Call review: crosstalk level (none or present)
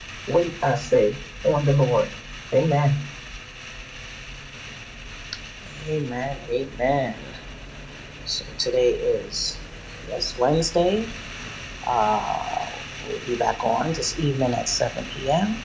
none